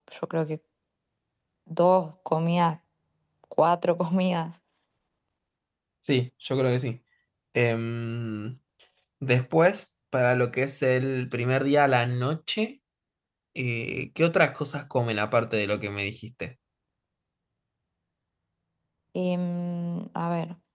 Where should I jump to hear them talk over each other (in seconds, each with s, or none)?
none